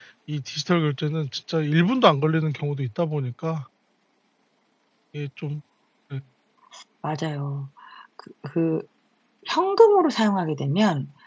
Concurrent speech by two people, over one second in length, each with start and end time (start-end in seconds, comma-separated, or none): none